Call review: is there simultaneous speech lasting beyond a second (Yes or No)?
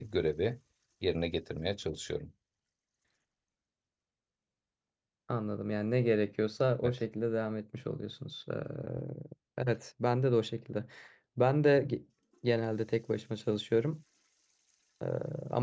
No